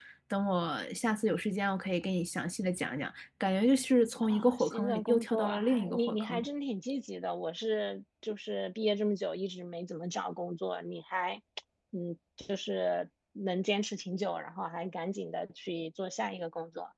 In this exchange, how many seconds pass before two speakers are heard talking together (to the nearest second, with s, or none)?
4 s